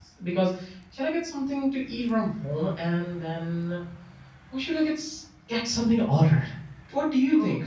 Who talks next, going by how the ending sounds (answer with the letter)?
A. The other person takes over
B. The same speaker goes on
B